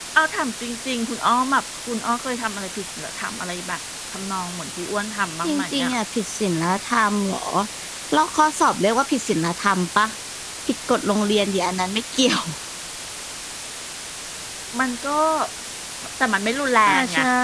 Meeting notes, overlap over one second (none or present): none